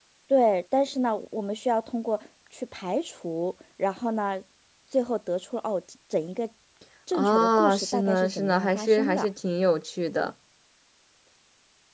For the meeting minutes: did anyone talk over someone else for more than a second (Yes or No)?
Yes